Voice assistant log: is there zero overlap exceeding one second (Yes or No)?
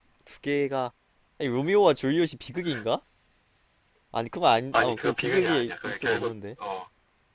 No